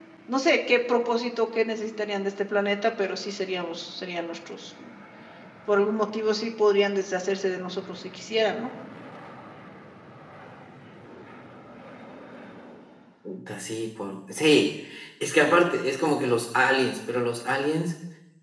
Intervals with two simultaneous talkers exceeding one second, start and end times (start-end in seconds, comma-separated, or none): none